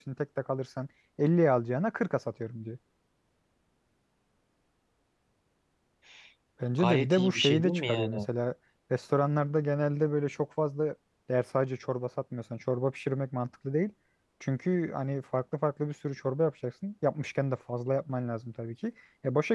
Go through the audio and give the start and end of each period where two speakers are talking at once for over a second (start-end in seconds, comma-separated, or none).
6.8-8.3